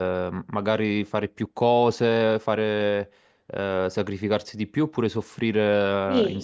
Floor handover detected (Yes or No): Yes